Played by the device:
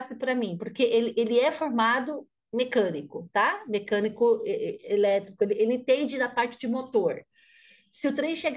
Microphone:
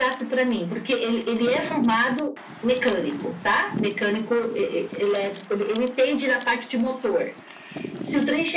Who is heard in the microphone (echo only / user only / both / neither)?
echo only